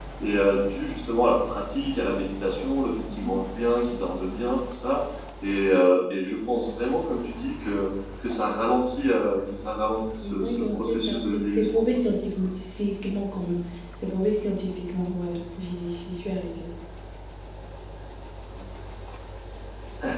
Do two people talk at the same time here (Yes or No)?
Yes